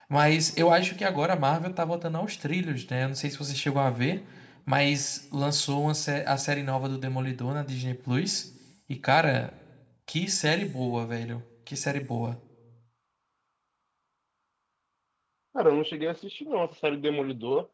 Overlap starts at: none

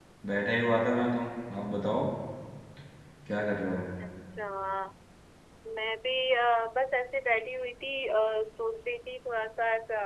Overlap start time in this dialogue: none

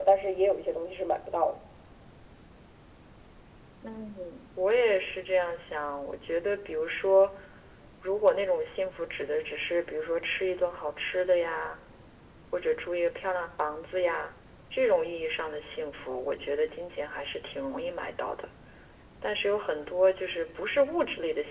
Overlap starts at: none

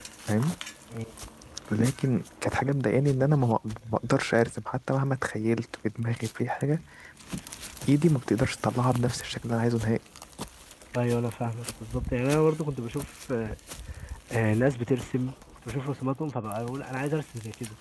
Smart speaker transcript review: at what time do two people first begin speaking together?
none

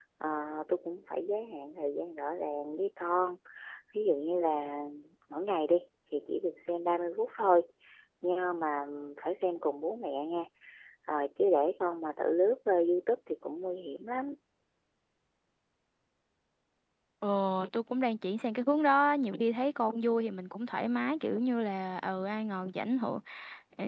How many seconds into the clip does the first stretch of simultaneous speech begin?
none

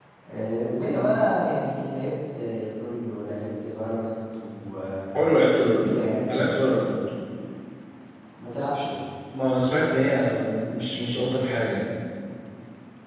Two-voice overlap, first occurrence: none

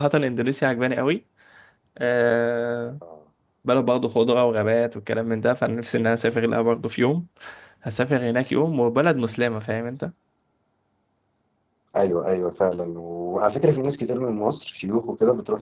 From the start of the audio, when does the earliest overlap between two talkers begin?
none

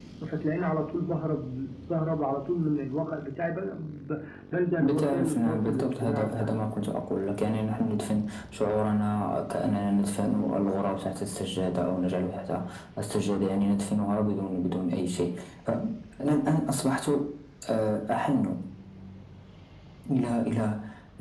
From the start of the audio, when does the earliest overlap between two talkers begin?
4.8 s

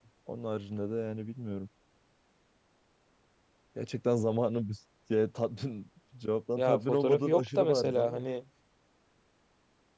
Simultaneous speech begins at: 6.6 s

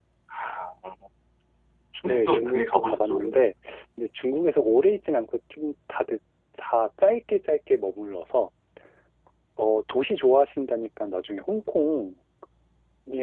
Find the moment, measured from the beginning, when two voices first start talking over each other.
2.0 s

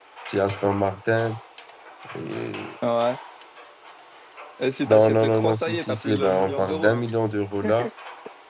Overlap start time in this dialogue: 4.9 s

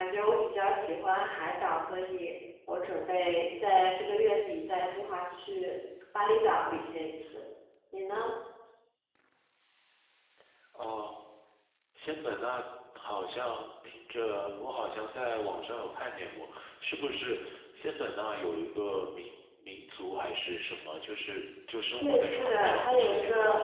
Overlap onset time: 22.0 s

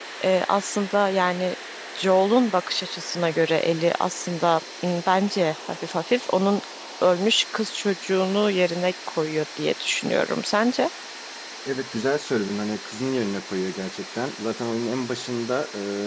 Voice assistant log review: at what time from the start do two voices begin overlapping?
none

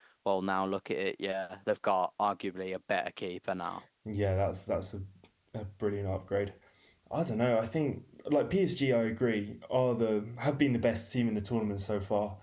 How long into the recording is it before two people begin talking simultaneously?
none

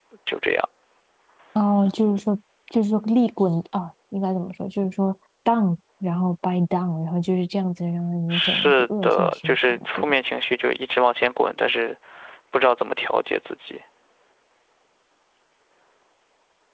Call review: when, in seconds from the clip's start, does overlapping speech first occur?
8.3 s

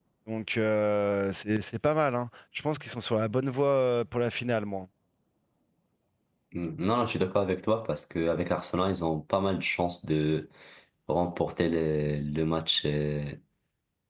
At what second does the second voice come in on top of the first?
none

